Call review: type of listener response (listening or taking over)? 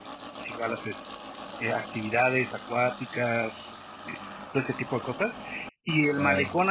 listening